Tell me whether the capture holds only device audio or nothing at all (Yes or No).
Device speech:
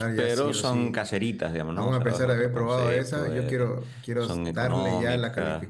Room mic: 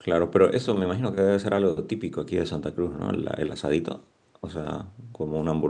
No